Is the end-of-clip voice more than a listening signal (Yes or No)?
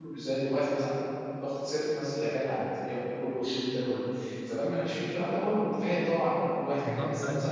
Yes